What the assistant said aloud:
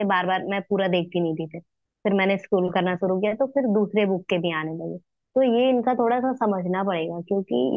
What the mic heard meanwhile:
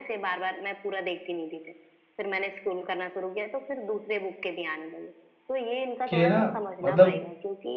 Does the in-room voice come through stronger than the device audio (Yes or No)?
Yes